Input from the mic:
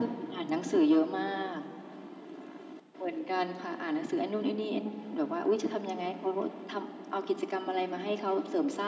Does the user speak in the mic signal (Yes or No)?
No